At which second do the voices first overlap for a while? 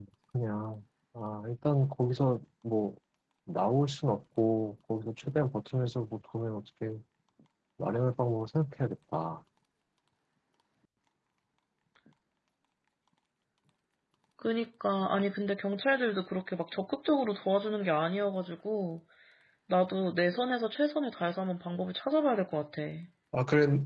none

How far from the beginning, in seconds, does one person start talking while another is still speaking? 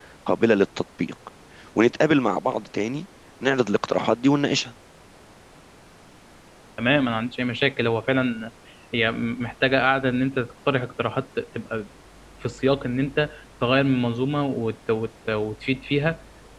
none

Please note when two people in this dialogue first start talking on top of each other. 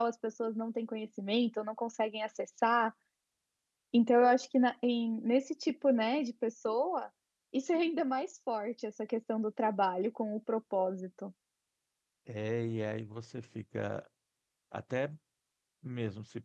none

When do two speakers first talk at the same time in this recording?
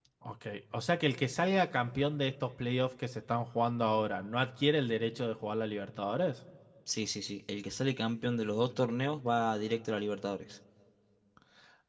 none

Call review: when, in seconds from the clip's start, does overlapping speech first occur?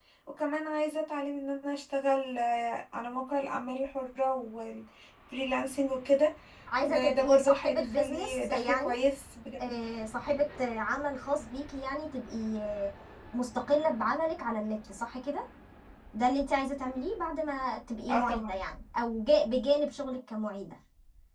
7 s

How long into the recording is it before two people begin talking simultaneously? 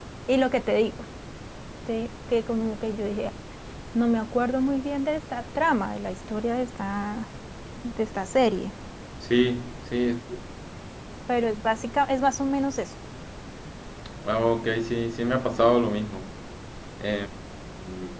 none

